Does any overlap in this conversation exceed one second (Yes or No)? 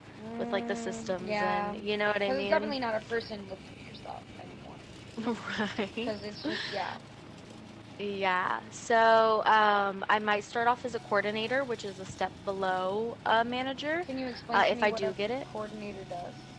Yes